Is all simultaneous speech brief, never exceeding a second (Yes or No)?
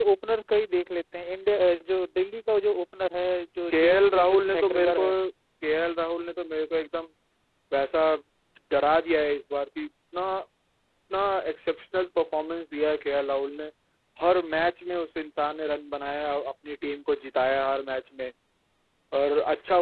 No